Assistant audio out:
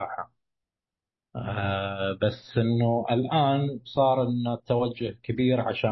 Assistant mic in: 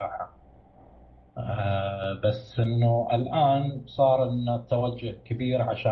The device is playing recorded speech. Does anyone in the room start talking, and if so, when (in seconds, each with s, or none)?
none